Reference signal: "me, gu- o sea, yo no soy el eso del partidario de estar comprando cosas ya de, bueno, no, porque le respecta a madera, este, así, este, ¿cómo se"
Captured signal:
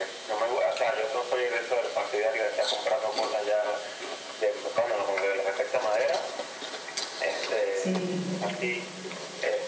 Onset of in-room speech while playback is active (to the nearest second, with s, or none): 8 s